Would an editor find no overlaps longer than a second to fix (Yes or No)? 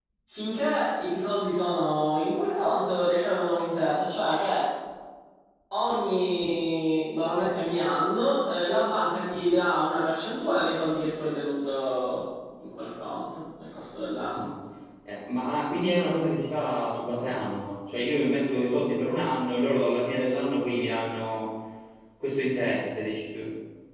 Yes